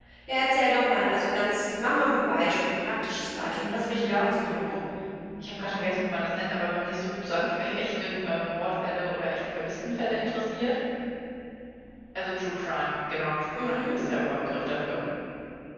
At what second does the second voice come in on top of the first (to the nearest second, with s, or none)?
3 s